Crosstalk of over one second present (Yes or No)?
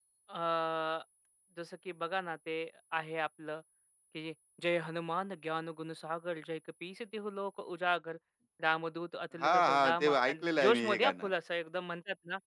Yes